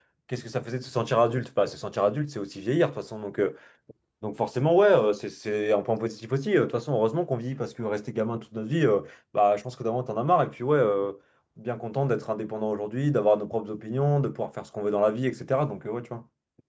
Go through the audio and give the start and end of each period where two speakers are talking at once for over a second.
none

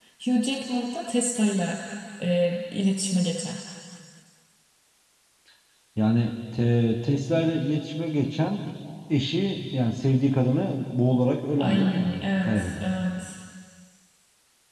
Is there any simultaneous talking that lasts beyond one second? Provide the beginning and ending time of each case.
11.6-12.8

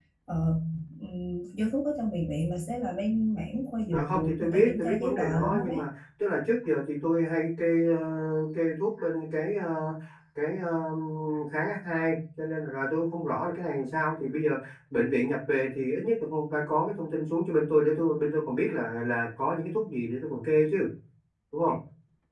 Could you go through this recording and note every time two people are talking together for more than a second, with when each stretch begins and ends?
3.9-5.8

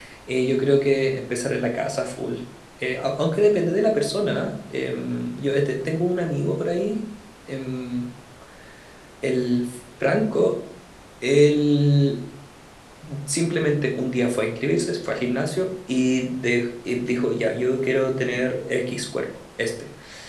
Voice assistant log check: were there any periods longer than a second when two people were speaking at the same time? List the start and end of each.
none

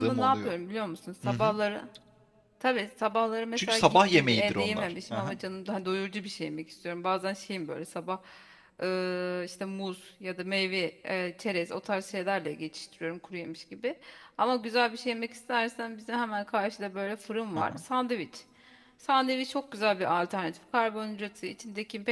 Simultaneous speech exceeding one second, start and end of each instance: 3.5-5.4

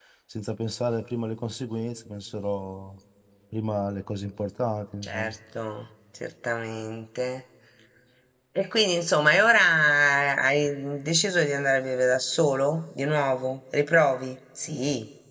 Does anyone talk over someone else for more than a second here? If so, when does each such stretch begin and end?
none

